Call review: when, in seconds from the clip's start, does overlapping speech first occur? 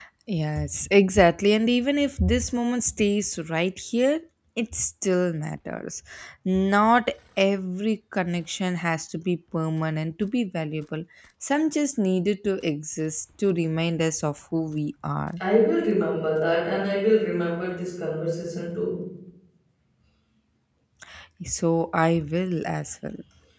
none

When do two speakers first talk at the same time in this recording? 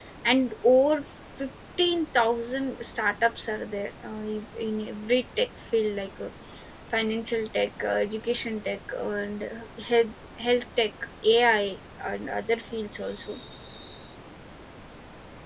none

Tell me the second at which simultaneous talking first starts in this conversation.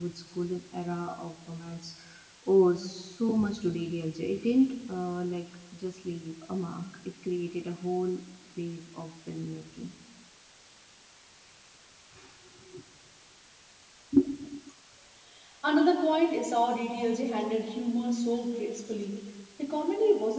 none

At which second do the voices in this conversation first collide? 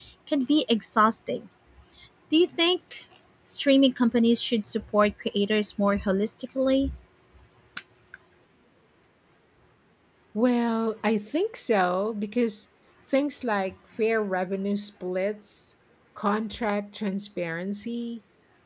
none

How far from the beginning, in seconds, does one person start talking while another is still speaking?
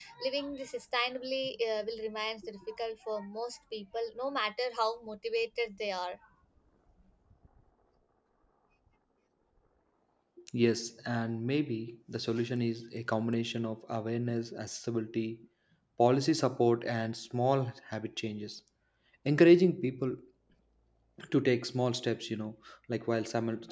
none

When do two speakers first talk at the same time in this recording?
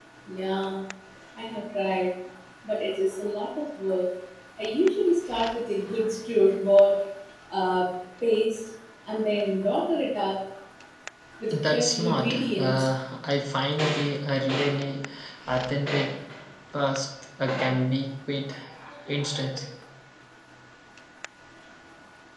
11.5 s

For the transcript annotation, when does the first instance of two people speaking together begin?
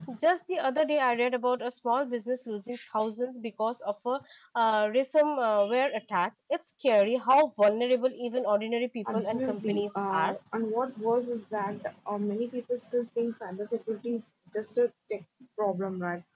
9.0 s

